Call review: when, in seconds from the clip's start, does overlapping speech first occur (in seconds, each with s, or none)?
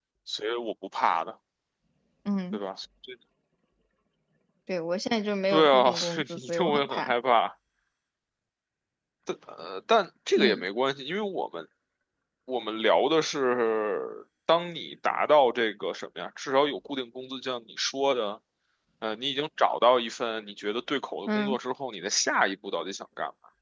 5.5 s